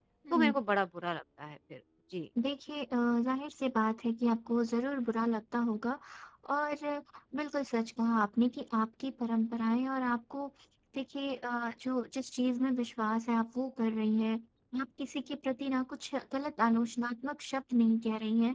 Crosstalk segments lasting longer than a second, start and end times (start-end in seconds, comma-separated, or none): none